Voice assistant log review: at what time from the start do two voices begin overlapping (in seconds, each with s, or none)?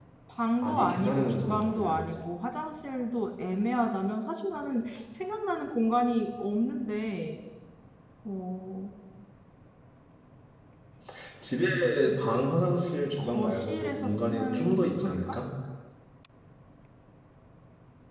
0.6 s